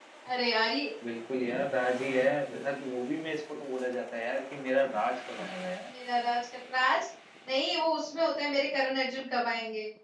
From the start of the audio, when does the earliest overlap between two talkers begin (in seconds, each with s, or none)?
none